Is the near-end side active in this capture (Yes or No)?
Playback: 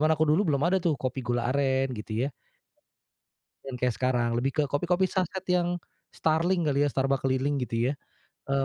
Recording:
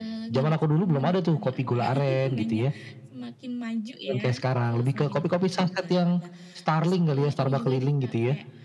Yes